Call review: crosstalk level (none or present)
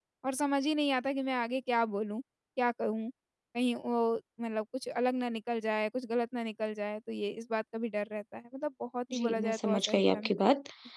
present